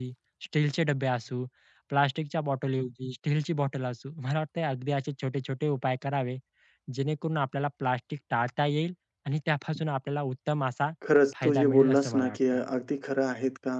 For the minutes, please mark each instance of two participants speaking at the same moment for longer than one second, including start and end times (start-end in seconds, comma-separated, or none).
11.4-12.6